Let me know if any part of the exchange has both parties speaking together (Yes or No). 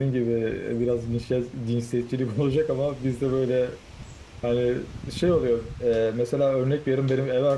No